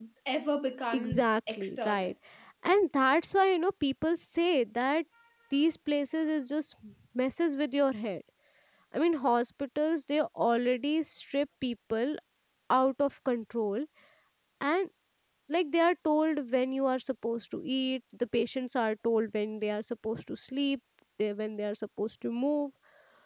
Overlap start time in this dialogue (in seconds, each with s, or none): 0.9 s